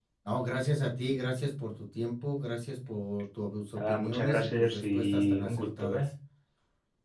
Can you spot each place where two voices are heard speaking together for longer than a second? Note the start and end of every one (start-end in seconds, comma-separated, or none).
3.8-6.0